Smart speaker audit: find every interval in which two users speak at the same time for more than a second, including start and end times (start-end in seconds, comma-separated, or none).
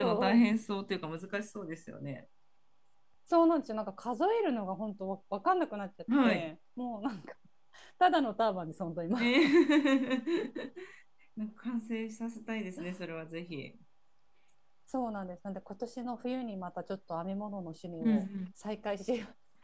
none